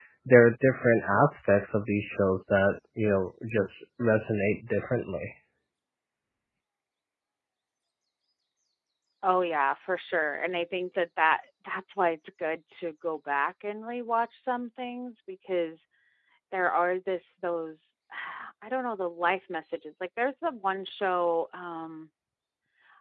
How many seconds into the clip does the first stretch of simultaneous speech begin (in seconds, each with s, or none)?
none